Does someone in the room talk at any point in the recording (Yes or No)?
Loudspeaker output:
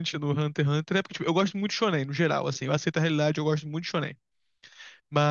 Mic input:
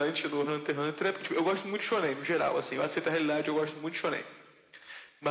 No